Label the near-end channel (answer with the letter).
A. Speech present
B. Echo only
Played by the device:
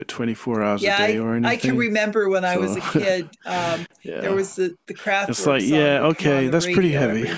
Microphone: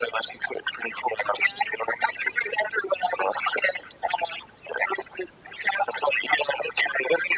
B